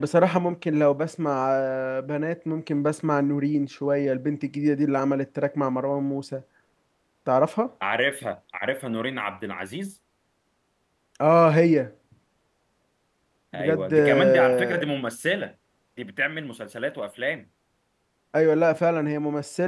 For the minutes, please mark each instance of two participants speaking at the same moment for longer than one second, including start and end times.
13.5-14.8

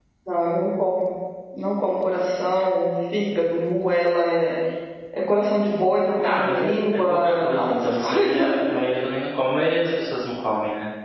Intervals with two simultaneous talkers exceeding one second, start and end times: 6.2-8.6

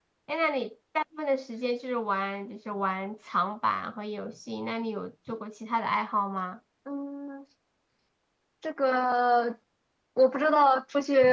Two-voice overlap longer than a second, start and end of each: none

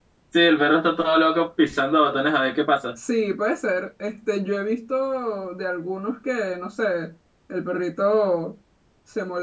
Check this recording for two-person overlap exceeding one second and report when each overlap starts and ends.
none

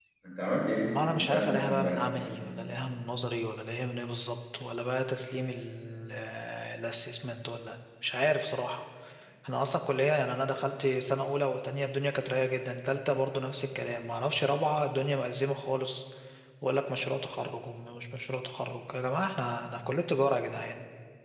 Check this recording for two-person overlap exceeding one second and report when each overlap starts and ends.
1.0-2.2

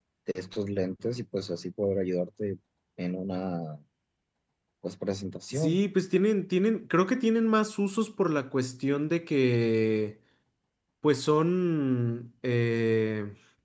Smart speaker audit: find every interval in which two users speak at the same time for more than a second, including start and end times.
none

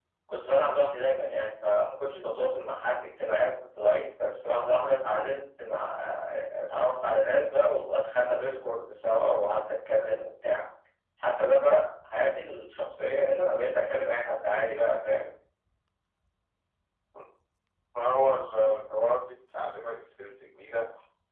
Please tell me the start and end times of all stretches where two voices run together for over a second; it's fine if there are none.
none

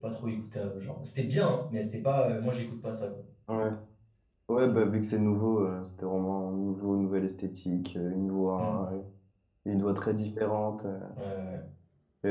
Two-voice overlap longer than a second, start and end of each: none

